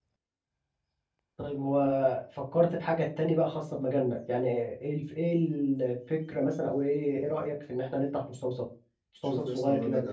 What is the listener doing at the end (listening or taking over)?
taking over